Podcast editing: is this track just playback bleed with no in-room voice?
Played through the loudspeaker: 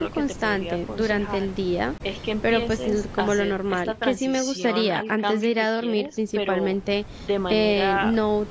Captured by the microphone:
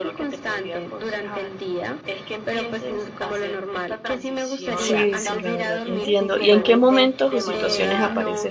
No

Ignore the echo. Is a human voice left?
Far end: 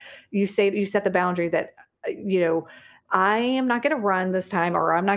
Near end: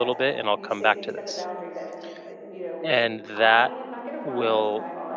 Yes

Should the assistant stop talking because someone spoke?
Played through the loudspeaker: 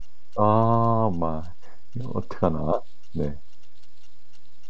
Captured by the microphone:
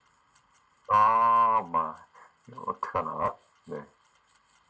No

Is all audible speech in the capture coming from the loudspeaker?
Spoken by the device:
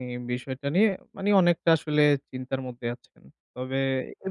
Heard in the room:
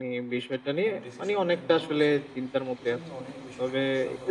No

